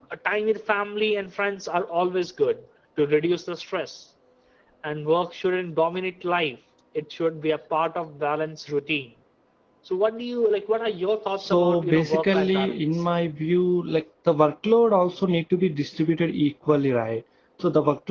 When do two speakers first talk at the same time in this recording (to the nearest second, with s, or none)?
11 s